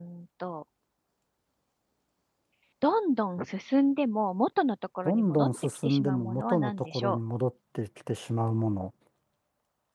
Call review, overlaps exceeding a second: present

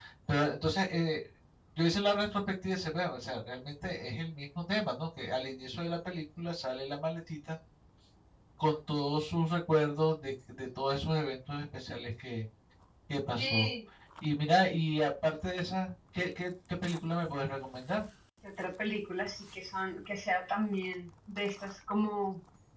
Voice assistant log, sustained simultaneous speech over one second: none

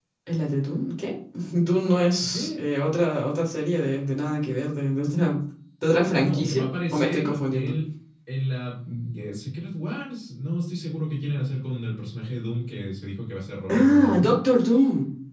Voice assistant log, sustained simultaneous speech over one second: present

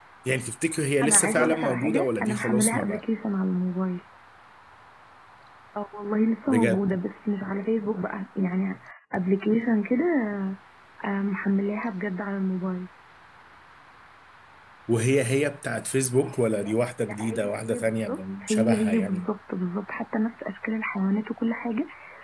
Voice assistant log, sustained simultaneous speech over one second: present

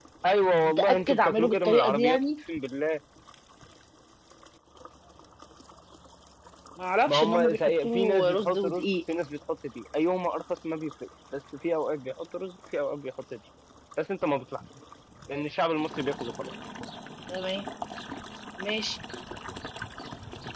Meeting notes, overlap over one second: present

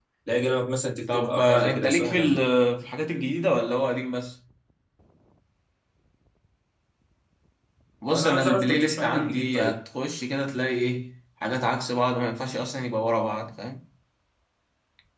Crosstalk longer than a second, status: present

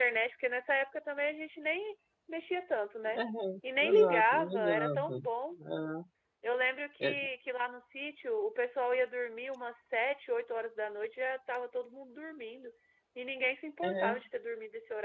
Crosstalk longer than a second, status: present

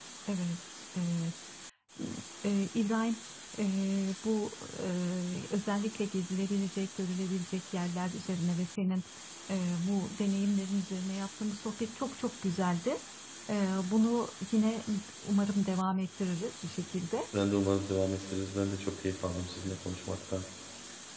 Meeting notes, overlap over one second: none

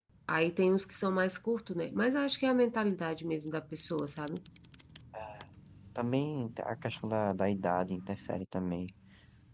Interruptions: none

